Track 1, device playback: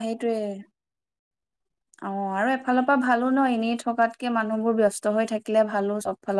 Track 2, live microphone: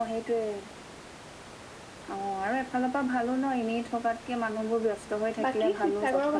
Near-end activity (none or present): present